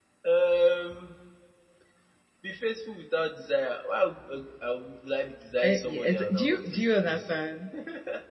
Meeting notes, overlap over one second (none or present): present